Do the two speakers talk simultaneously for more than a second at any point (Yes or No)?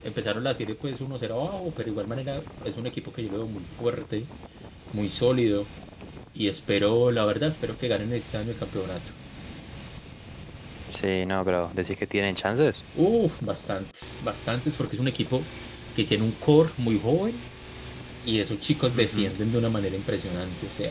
No